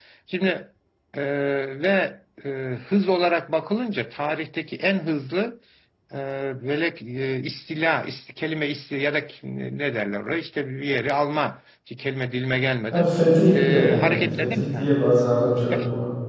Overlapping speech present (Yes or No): Yes